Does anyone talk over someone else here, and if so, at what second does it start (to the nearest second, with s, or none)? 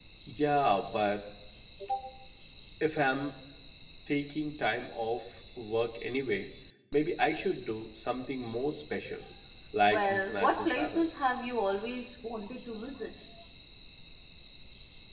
10 s